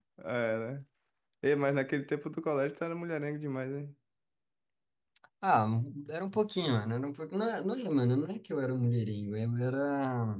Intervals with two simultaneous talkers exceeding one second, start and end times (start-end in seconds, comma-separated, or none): none